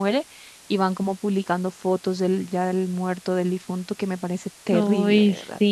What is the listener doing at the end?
taking over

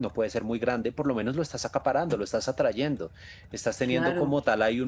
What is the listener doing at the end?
listening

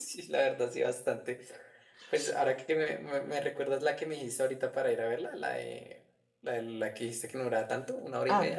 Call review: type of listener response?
taking over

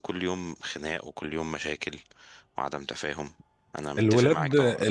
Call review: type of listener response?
taking over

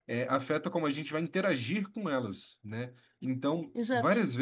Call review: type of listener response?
listening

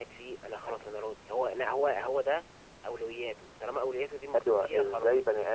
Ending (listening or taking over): taking over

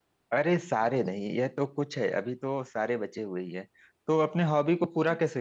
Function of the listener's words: listening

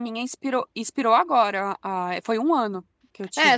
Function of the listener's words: taking over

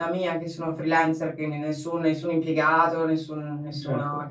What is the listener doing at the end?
listening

